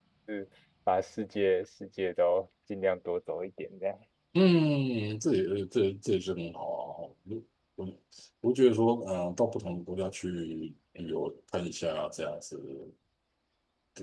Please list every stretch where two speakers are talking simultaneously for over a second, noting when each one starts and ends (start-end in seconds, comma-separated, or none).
none